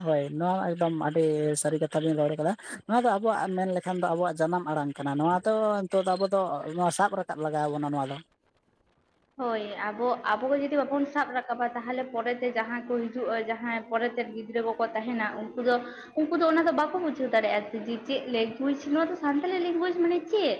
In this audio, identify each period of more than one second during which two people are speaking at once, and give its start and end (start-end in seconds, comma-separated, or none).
none